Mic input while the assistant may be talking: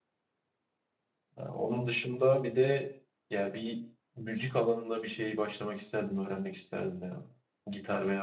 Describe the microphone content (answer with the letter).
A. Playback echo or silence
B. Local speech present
B